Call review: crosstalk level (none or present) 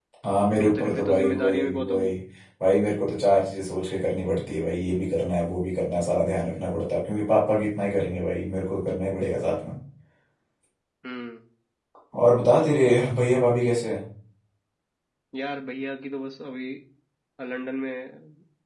present